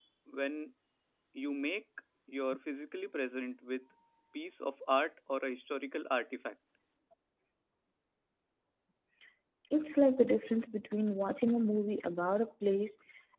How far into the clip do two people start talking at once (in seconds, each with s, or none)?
none